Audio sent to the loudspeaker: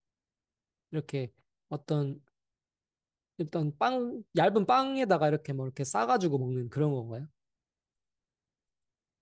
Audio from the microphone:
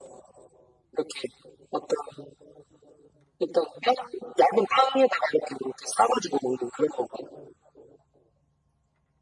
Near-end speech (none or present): none